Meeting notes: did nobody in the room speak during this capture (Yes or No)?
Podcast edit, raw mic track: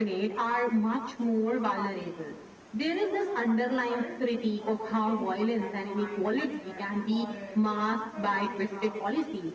No